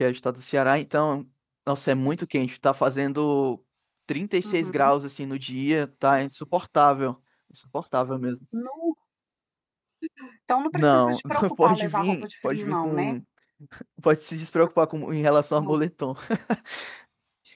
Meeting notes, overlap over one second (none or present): present